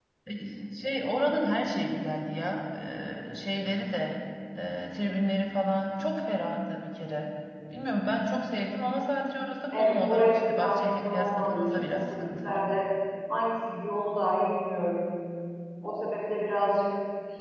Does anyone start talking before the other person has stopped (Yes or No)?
Yes